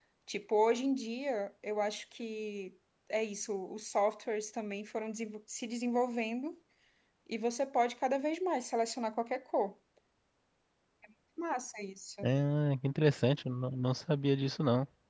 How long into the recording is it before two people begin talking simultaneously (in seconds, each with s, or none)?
none